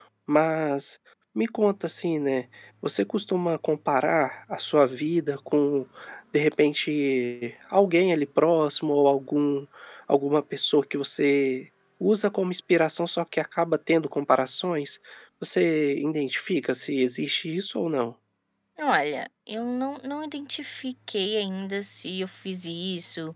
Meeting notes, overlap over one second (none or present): none